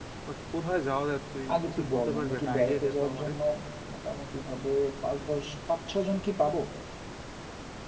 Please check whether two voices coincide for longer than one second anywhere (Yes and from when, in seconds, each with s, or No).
Yes, from 1.5 s